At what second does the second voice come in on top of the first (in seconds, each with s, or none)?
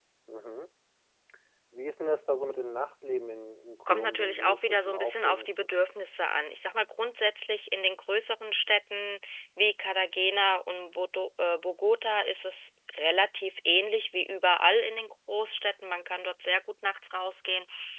3.9 s